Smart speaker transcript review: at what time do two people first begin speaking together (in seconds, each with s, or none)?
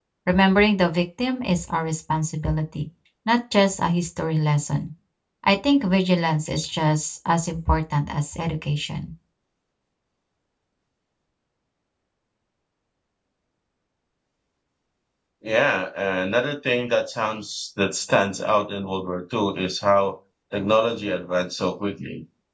none